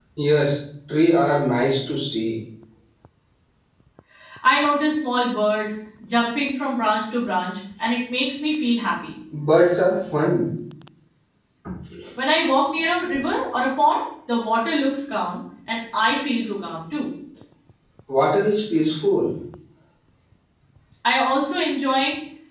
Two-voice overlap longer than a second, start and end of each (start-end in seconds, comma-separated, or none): none